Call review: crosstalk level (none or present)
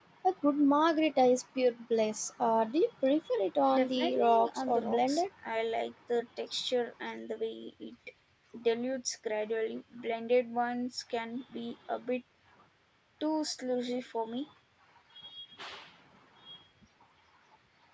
present